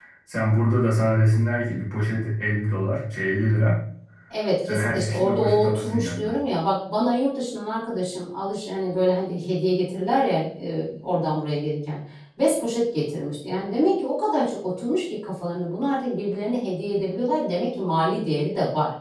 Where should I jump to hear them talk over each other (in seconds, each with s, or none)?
4.7 s